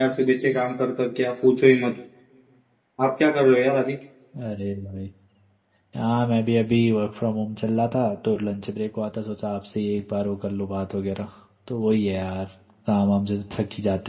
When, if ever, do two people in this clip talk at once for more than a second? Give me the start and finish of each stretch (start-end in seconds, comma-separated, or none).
none